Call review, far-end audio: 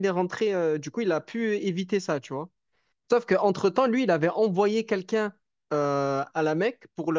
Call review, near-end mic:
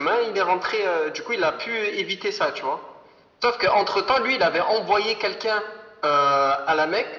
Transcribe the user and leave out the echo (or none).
none